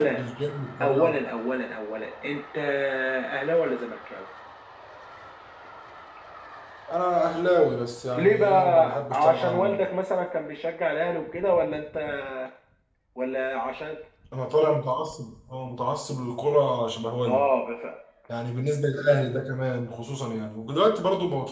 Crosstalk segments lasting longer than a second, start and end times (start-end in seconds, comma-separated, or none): 8.1-9.8